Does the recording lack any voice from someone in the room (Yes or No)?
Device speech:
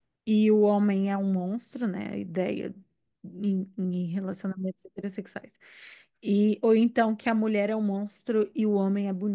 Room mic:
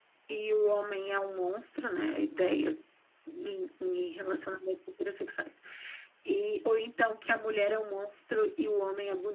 Yes